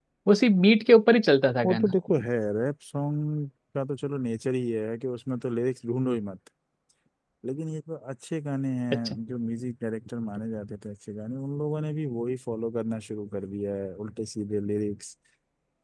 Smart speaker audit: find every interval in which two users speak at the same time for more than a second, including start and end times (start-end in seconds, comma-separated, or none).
none